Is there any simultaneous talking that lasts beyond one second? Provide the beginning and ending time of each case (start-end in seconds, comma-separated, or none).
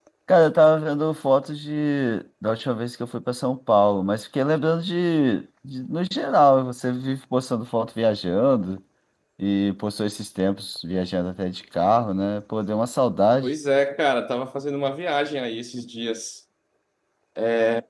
none